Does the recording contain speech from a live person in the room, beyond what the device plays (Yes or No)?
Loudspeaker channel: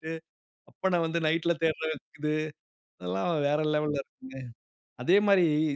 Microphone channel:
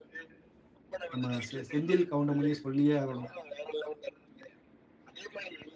Yes